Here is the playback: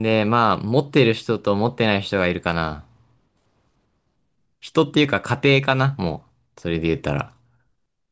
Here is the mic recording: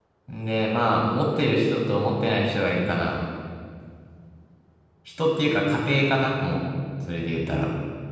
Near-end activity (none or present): none